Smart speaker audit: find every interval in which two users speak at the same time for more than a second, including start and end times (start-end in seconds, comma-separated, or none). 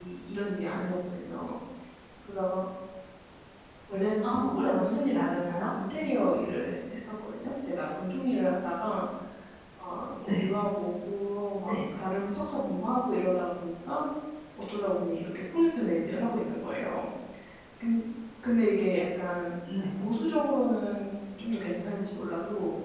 4.2-5.7